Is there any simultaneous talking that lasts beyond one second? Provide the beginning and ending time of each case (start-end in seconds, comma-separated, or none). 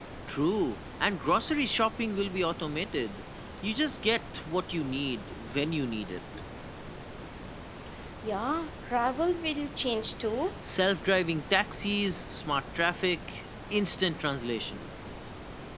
none